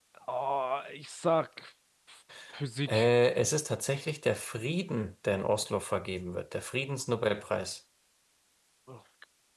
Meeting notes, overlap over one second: none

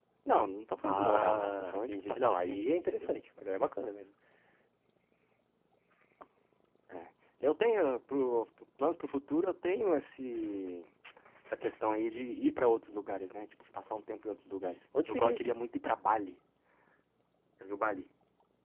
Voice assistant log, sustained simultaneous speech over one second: present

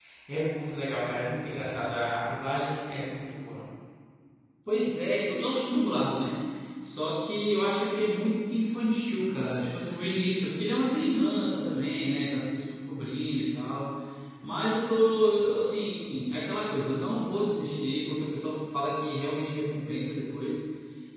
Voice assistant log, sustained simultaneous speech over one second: none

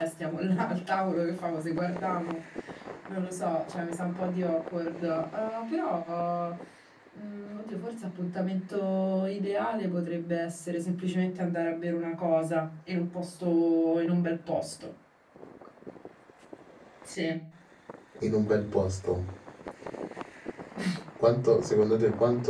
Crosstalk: none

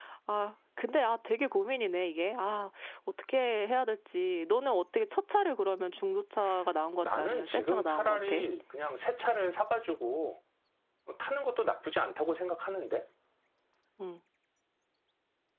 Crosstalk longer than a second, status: present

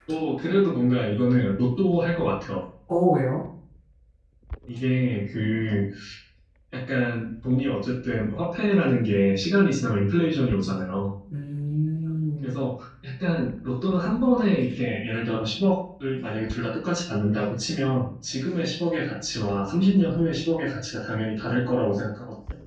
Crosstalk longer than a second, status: none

